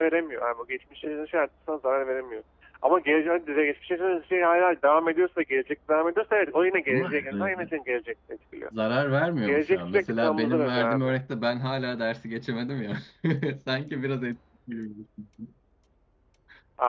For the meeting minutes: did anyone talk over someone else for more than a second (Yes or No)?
Yes